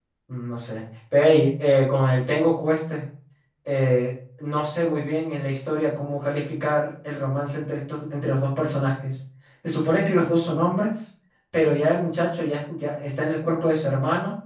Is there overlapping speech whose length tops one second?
No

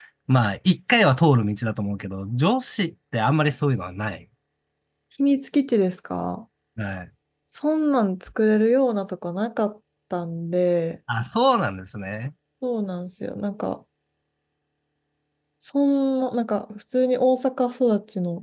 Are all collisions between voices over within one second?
Yes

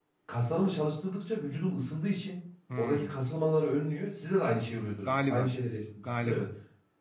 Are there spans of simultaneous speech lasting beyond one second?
No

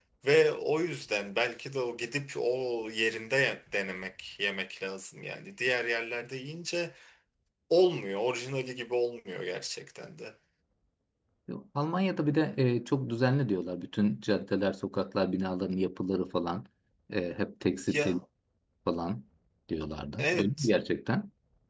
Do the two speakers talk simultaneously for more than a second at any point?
No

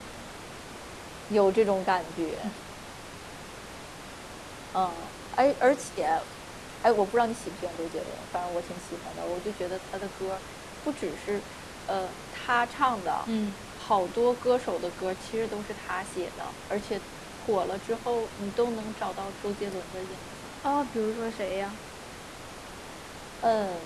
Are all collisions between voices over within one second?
Yes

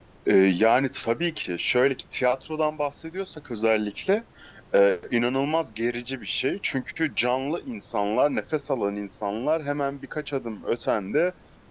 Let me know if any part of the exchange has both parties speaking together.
No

